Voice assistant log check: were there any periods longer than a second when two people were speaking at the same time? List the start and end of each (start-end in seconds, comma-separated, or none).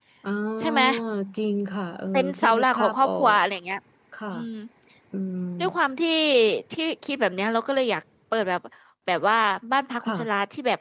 2.1-3.4